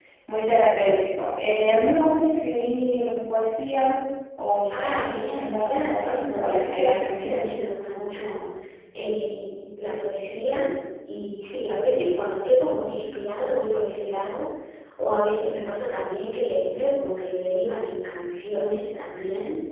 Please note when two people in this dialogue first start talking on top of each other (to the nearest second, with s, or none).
5 s